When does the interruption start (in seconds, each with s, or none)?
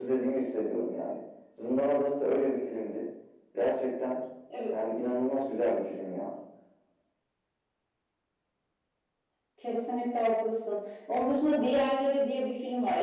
none